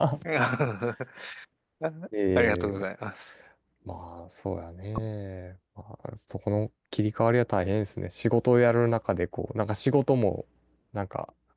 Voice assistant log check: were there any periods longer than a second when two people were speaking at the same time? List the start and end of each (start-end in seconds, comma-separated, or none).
none